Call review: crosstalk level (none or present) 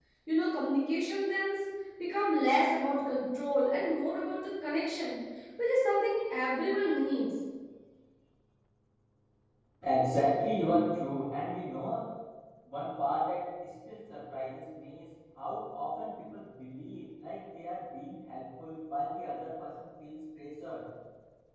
none